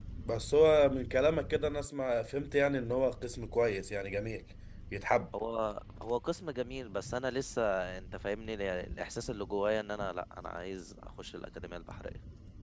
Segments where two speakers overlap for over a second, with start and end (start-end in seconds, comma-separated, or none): none